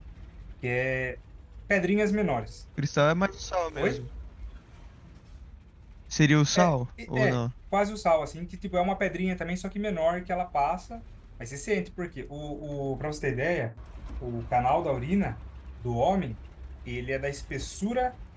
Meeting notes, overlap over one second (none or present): none